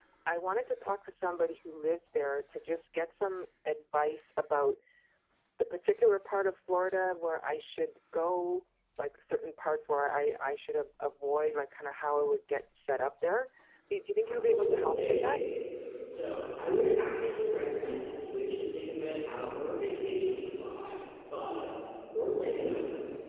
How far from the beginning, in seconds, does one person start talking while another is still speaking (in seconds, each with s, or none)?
14.2 s